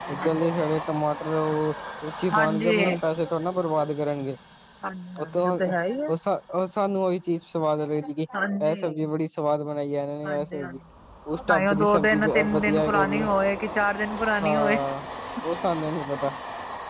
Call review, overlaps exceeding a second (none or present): present